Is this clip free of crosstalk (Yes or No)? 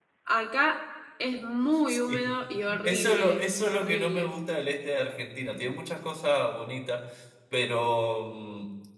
No